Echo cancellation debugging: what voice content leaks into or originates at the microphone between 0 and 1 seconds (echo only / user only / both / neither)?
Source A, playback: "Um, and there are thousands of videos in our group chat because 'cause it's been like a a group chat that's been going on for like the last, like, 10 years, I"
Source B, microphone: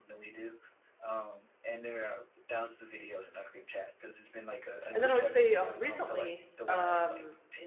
echo only